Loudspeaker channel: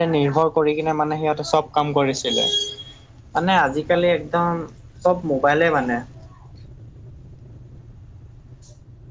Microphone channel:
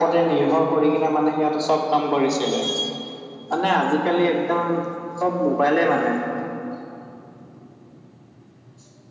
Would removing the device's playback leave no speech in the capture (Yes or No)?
Yes